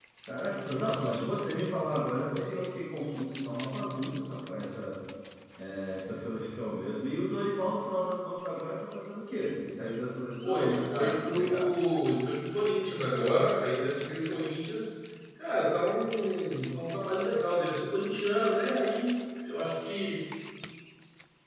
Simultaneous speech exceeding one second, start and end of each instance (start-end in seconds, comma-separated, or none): 10.4-11.8